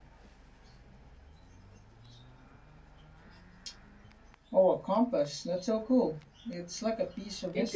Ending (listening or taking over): taking over